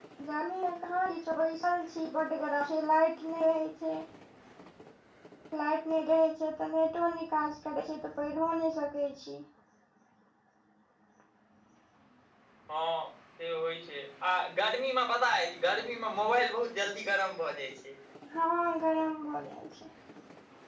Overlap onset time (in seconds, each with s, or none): none